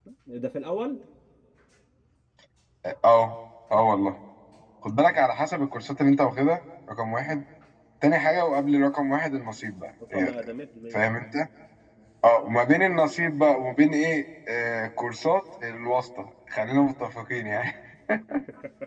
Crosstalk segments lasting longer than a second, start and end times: none

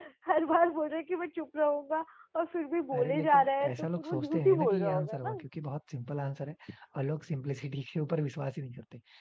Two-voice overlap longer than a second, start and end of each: 3.0-5.2

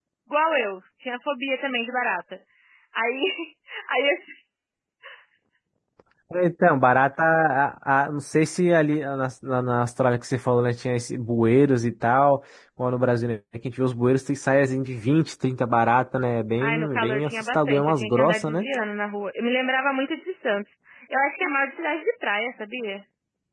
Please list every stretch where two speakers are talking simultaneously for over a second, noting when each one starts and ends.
16.6-18.7

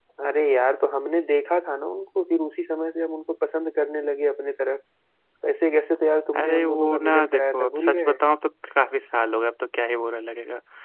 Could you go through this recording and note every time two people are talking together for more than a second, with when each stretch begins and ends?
6.4-8.2

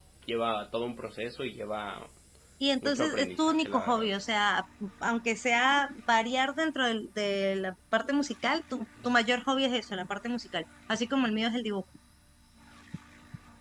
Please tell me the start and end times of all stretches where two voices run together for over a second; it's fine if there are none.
2.8-4.1

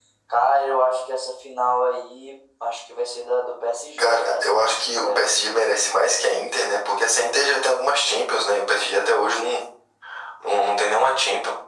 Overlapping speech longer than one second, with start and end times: 4.0-5.2

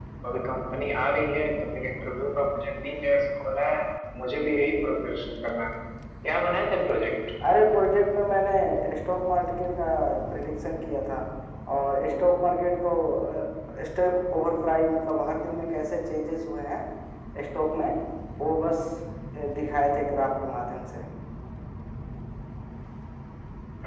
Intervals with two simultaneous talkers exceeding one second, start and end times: none

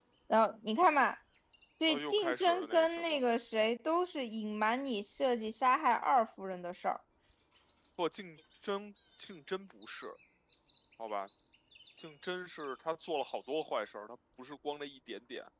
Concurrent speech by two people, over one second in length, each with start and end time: 1.9-3.2

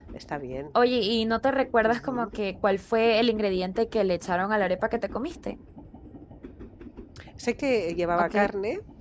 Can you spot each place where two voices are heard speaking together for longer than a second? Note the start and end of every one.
none

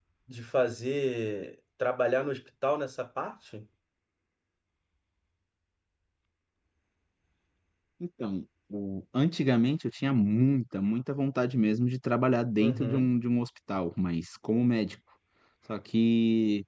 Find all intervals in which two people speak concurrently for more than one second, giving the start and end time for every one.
none

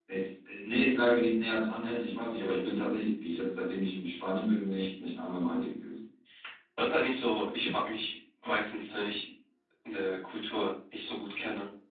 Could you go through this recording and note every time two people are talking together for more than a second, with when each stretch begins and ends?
none

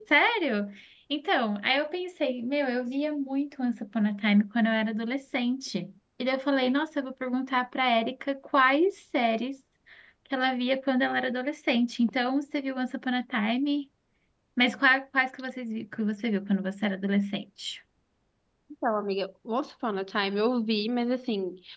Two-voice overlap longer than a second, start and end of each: none

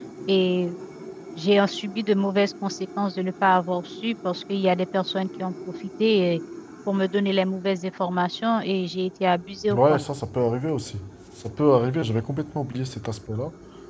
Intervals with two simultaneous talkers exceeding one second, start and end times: none

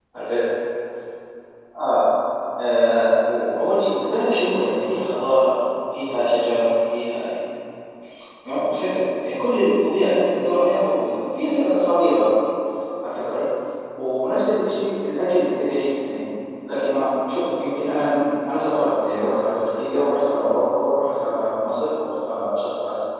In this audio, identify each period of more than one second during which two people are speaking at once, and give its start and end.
none

